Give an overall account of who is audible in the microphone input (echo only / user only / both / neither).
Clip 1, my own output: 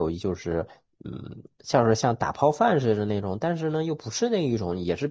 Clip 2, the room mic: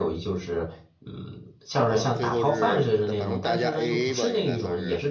both